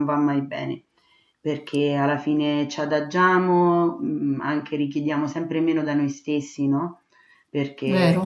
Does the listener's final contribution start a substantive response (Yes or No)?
No